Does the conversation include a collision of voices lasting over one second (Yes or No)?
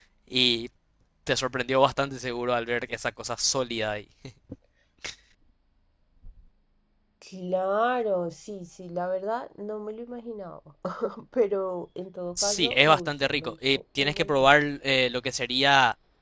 Yes